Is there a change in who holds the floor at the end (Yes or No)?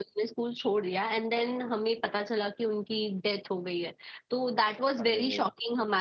No